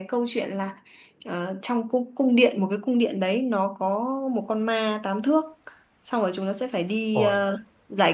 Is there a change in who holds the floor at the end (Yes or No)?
No